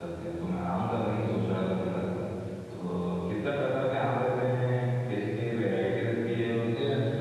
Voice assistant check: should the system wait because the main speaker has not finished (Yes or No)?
Yes